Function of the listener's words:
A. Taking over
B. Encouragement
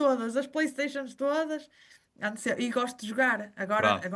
B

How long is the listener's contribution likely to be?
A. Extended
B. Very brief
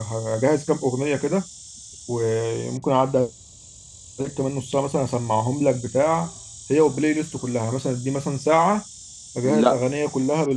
B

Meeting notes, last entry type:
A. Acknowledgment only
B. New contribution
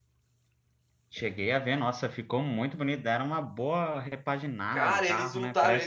B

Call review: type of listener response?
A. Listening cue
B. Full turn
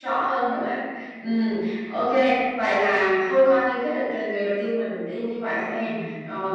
A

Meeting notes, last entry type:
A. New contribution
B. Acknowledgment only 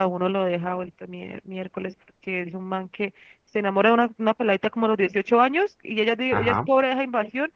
B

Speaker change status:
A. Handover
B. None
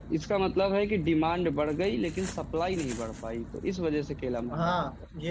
A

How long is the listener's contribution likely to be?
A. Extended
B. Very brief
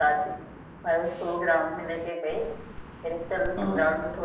B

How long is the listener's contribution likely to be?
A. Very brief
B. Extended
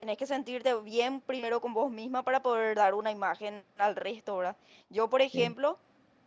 A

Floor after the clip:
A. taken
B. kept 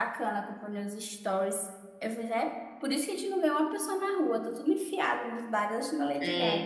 A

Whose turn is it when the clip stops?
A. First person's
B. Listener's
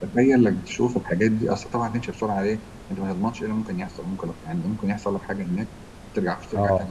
A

